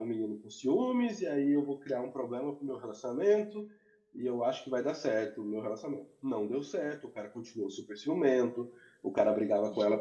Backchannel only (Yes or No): Yes